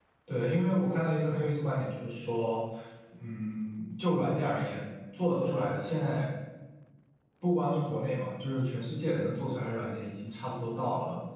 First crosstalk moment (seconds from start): none

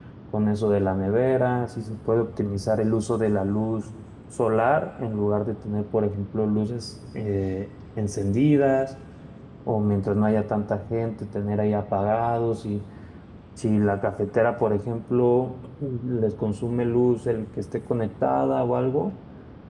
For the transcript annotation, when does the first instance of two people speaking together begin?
none

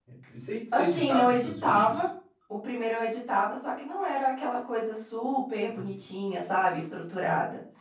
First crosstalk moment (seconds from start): 0.7 s

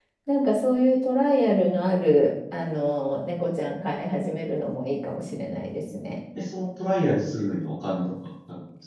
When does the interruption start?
none

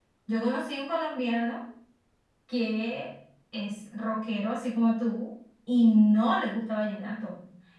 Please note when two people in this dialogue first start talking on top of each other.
none

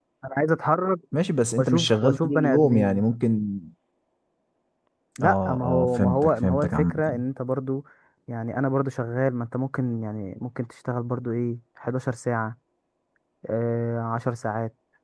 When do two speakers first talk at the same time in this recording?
1.6 s

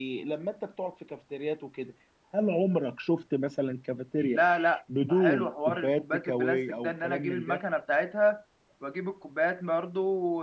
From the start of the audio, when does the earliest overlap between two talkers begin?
5.1 s

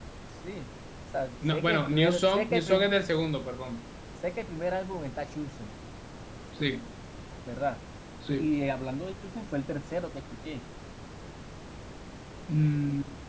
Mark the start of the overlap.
1.4 s

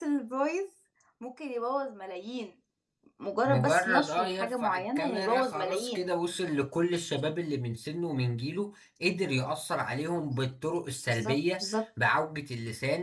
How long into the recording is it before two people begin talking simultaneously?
3.5 s

